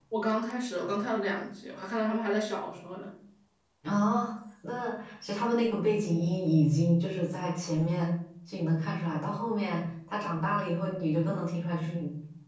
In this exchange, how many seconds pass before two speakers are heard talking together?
none

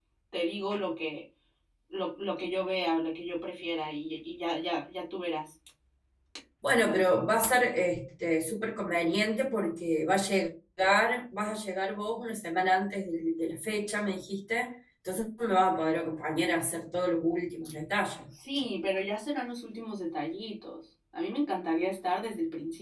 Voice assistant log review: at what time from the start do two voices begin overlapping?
none

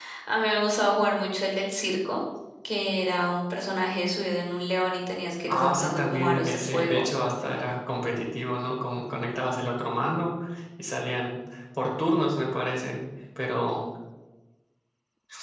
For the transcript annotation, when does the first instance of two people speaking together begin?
5.5 s

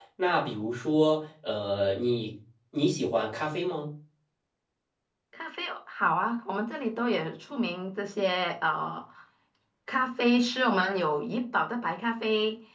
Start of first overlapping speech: none

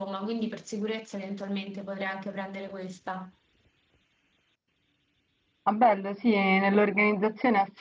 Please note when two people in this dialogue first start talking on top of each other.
none

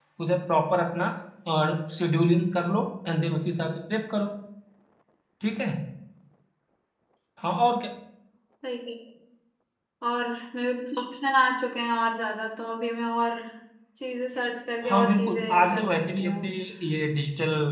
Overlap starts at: 14.8 s

